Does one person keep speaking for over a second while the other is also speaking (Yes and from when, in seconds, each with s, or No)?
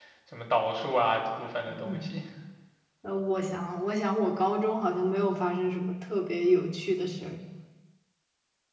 No